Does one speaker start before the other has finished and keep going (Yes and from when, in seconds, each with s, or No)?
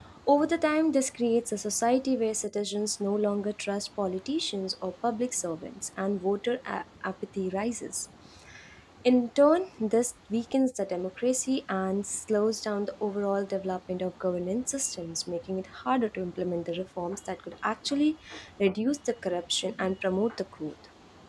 No